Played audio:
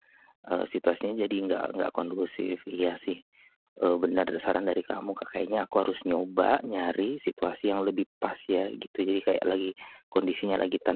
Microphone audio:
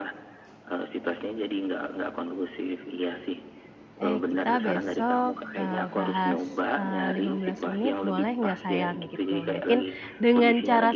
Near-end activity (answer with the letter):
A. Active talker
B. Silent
A